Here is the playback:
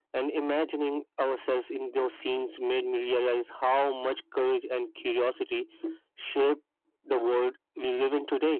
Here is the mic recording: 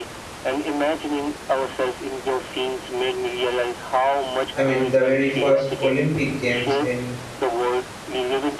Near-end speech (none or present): present